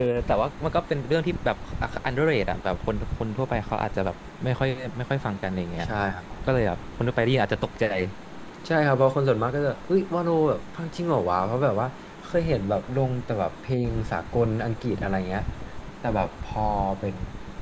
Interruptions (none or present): none